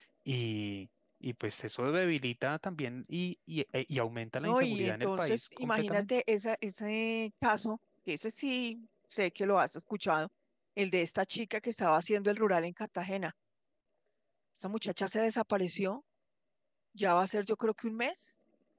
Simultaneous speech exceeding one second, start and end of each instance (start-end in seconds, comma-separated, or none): 4.4-6.0